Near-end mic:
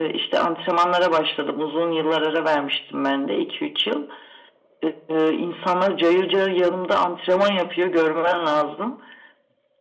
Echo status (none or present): present